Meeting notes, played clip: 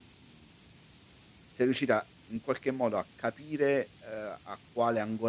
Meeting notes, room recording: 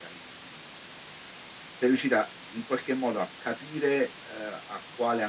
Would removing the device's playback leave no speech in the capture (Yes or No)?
Yes